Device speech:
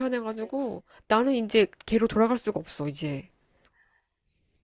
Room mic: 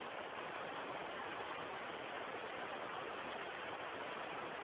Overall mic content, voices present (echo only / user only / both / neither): neither